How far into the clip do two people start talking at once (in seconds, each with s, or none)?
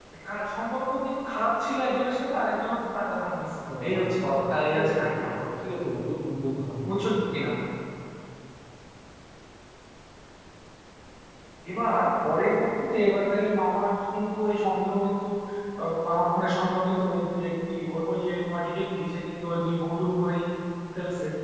3.7 s